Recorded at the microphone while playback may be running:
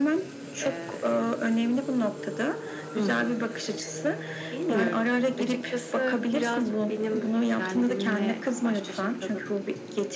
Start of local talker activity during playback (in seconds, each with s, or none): none